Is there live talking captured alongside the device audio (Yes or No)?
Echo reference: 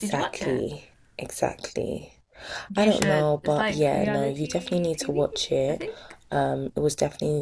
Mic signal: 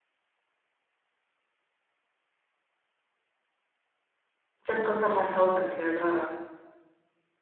Yes